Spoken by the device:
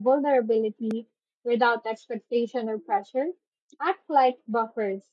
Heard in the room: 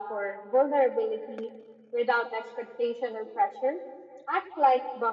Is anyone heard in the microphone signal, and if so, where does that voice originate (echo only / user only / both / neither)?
echo only